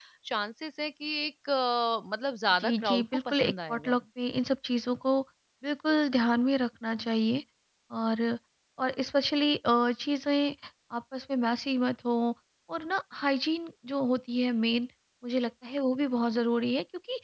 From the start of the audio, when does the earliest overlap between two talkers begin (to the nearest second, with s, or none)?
3 s